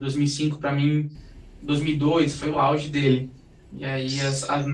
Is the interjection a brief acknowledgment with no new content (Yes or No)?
Yes